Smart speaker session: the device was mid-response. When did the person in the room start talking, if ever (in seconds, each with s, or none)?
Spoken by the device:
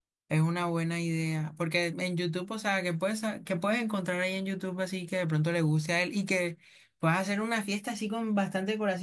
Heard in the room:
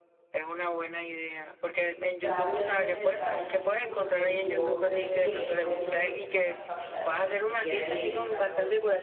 2.1 s